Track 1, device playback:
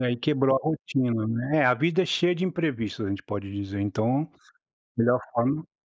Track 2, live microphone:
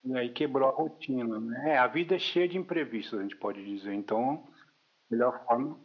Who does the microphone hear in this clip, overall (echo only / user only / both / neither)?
echo only